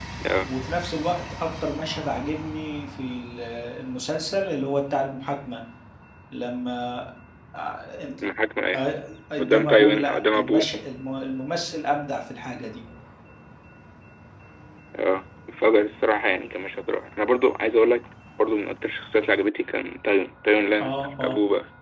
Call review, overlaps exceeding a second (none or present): present